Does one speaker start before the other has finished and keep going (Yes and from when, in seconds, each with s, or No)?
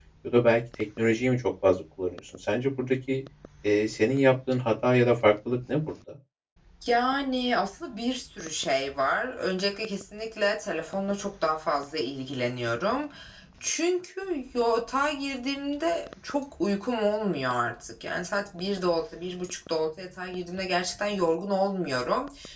No